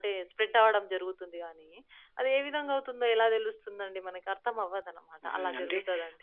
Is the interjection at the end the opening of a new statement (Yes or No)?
Yes